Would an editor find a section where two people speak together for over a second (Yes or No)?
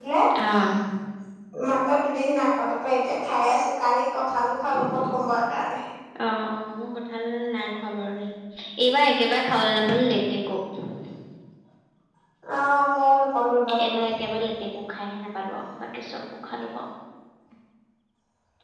No